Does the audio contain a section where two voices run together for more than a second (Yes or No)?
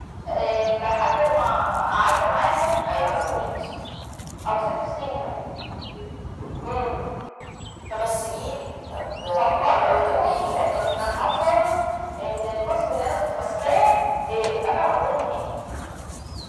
Yes